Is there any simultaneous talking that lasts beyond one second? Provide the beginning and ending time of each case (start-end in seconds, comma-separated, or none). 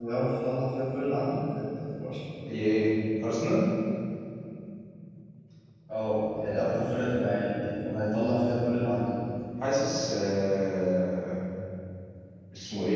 none